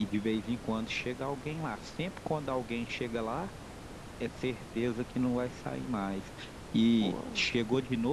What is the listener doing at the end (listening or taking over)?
listening